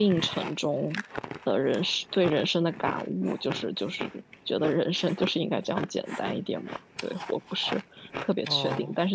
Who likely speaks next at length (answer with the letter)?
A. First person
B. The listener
A